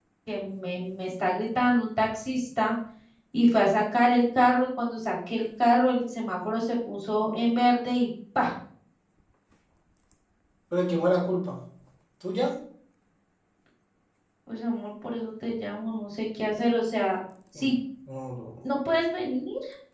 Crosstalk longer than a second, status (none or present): none